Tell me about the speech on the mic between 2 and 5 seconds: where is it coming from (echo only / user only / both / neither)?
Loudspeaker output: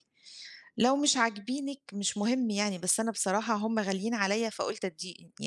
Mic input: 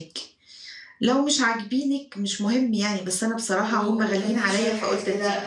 both